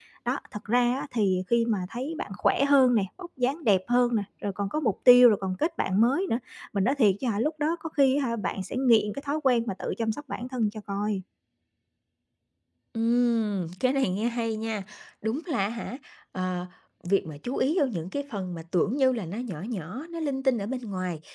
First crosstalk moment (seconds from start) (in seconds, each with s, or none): none